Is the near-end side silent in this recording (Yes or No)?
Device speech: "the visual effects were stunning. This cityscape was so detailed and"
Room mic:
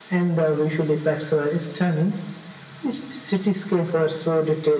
Yes